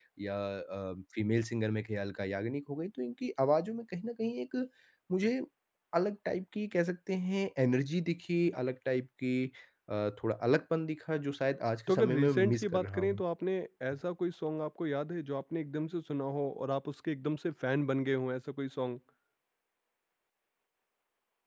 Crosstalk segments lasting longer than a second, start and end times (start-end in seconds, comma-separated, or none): 11.9-13.2